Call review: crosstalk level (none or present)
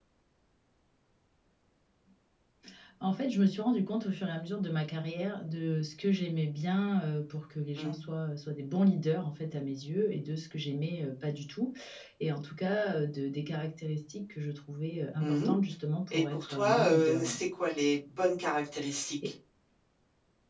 present